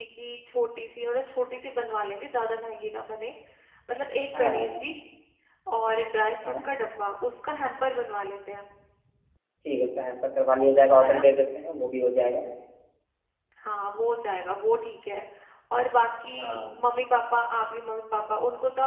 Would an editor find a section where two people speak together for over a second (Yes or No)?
No